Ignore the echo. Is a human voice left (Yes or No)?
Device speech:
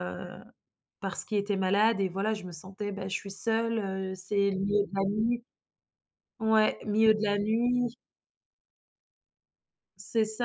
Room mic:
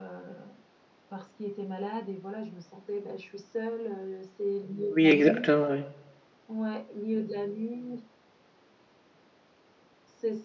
Yes